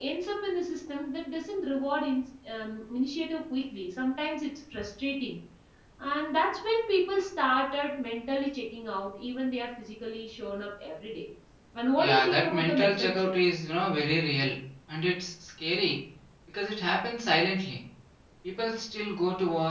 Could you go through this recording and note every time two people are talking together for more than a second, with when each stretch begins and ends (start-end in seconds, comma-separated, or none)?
12.0-13.3